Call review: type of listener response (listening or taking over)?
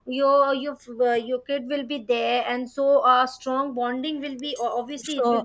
taking over